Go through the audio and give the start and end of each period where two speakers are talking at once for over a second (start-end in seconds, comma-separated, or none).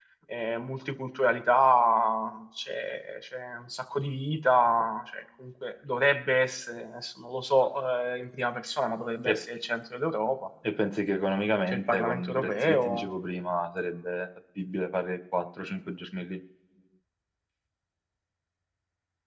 11.7-13.1